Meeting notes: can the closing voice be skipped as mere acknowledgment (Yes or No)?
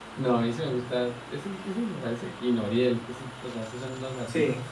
Yes